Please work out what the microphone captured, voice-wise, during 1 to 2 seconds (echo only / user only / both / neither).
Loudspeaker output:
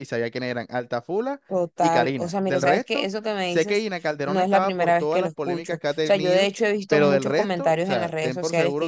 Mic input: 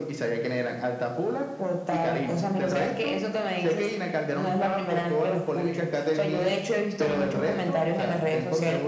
echo only